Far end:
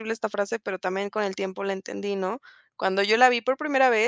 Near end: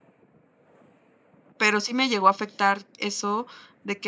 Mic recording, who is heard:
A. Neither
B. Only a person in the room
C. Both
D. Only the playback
B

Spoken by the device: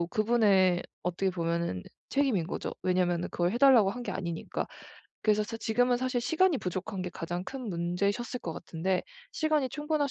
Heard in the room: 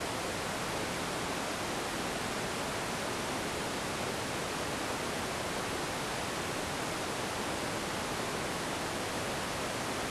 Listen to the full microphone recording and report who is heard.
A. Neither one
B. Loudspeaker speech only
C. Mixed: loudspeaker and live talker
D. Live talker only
A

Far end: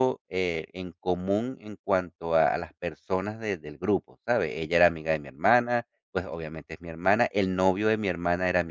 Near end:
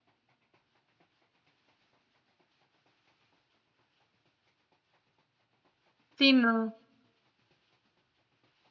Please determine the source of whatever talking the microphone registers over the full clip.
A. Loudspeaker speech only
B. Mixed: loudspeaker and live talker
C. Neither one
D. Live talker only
D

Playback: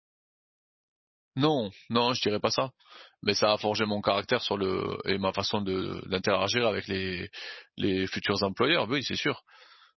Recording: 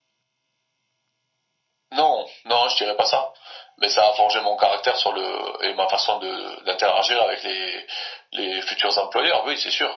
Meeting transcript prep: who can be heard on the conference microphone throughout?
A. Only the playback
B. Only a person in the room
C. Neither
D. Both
A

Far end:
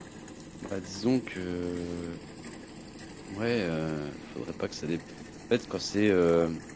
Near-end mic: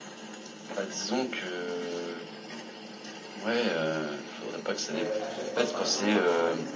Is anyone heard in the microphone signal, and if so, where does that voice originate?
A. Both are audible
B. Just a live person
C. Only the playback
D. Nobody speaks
A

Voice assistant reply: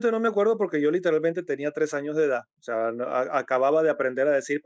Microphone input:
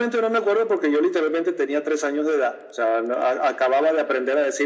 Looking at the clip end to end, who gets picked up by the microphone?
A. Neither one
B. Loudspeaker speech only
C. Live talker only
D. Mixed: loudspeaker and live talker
B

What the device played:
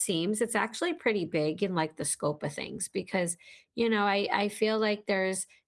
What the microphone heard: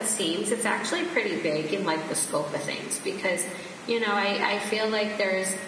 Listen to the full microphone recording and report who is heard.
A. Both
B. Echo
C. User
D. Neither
B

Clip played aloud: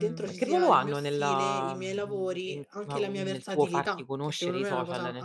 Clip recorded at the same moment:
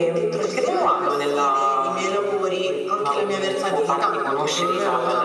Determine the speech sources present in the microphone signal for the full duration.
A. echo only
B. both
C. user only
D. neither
A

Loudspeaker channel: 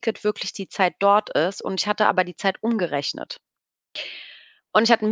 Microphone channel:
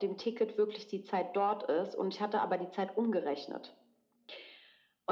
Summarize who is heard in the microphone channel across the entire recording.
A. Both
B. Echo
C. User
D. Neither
B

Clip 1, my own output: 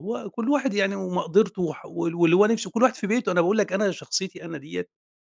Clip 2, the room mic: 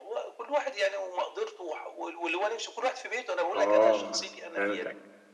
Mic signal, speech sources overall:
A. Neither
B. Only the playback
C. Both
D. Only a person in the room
C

